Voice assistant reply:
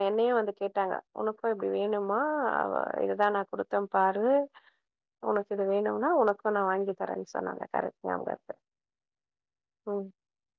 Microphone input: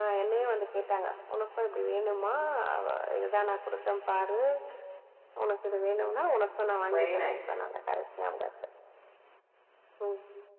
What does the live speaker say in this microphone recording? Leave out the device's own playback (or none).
வெரி நைஸ்